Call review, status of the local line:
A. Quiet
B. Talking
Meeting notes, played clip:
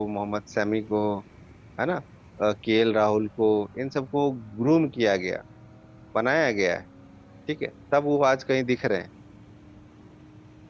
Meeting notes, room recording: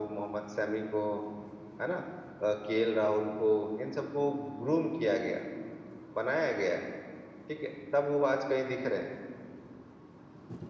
A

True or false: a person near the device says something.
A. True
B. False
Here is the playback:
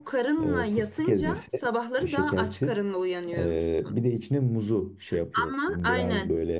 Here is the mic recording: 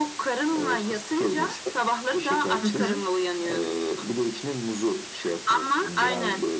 A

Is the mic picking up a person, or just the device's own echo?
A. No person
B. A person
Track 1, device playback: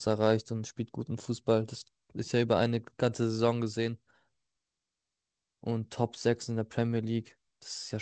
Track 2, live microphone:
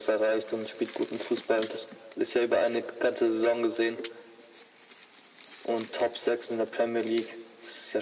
A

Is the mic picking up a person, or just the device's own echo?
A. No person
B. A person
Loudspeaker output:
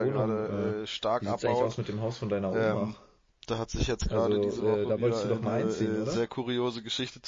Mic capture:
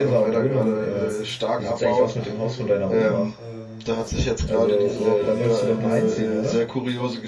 B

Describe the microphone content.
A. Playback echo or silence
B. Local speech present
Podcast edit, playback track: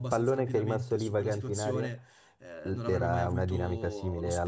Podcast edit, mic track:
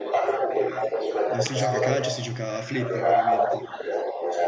B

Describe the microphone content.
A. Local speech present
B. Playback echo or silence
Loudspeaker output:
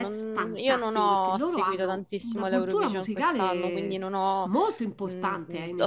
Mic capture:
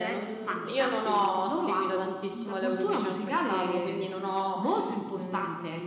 B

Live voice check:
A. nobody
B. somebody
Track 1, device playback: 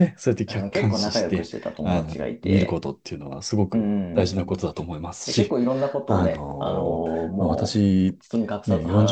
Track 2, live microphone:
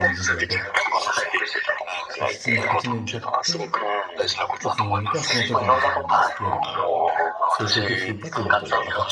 B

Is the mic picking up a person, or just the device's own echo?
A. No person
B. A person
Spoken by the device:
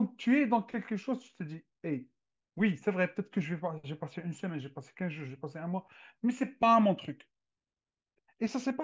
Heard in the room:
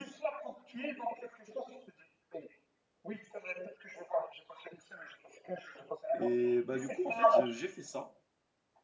B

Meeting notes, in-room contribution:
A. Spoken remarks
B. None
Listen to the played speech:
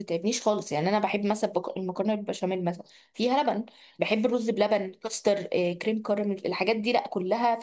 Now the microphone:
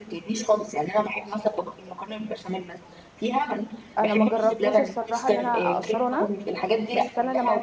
A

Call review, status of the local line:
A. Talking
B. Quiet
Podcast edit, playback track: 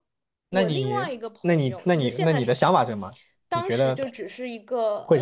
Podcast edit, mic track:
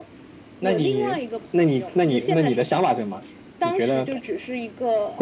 B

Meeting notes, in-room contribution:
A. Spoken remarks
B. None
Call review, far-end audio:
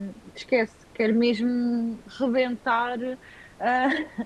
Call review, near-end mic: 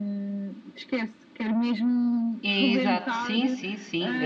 A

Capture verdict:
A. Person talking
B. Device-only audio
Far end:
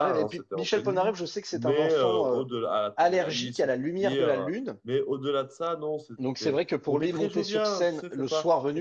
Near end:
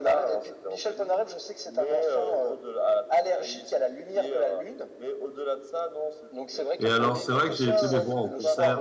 A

